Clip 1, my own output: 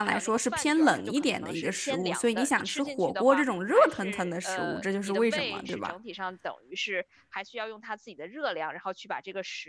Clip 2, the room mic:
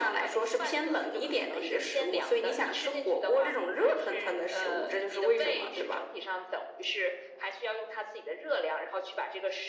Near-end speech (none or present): none